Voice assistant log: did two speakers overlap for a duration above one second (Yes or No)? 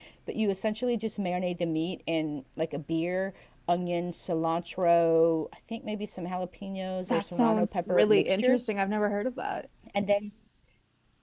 Yes